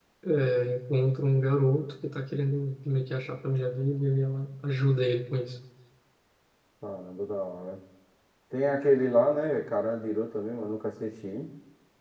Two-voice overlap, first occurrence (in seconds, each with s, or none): none